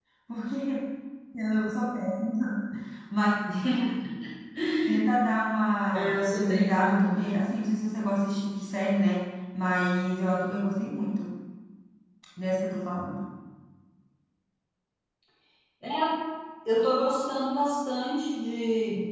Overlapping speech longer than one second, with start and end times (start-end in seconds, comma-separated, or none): 5.9-7.4